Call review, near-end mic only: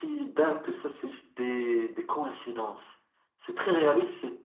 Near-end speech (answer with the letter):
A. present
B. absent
B